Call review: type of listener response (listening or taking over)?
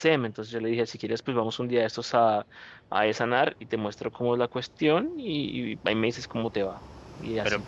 taking over